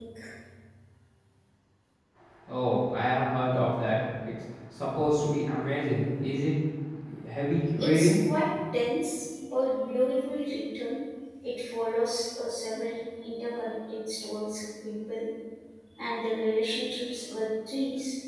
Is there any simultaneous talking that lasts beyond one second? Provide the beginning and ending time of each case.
none

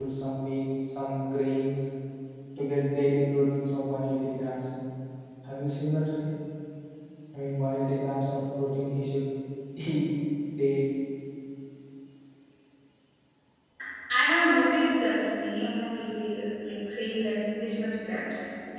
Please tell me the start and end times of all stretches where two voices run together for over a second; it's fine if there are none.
none

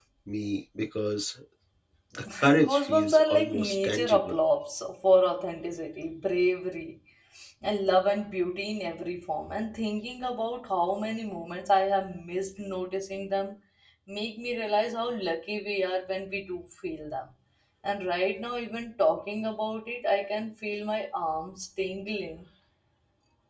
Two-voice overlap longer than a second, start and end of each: 2.4-4.3

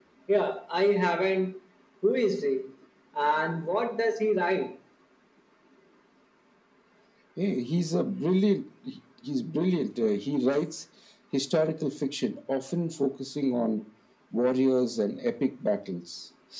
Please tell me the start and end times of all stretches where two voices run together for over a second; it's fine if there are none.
none

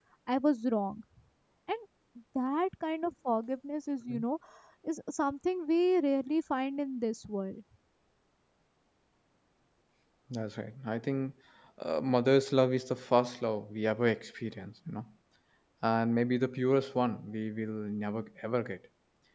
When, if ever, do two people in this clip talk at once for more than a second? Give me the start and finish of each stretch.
none

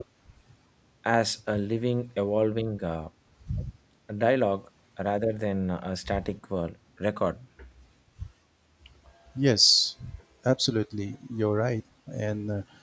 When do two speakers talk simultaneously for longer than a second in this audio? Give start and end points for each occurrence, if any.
none

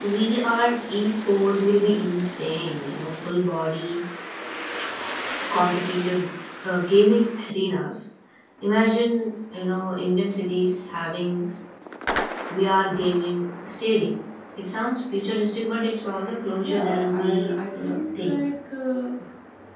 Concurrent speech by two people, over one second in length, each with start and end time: 16.6-18.4

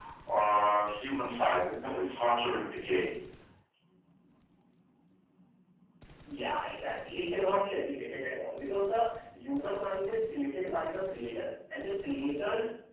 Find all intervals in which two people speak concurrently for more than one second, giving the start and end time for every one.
none

